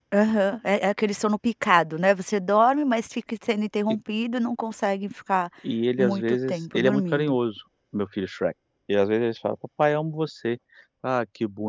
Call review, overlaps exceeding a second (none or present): present